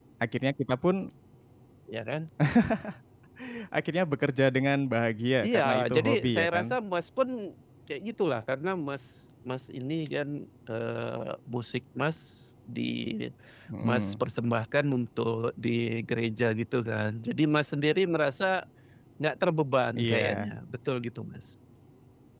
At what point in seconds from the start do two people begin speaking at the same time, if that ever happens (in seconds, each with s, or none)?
5.4 s